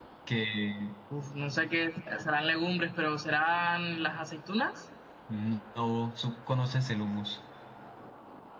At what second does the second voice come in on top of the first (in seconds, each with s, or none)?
none